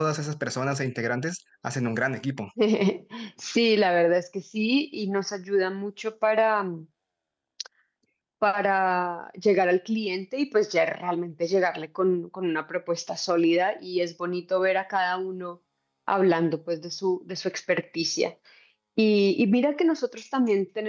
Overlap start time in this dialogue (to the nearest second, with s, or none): none